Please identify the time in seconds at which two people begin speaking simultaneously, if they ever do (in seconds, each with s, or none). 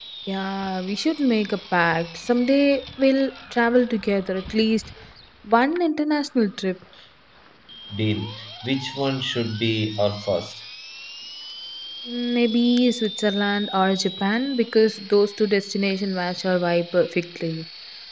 none